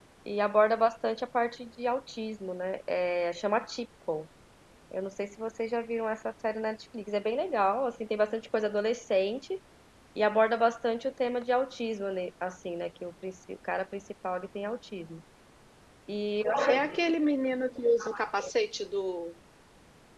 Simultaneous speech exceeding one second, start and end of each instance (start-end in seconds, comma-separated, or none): none